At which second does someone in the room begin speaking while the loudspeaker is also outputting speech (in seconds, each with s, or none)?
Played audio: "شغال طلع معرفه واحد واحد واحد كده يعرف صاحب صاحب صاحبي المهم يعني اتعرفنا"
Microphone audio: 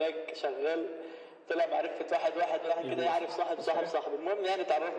2.8 s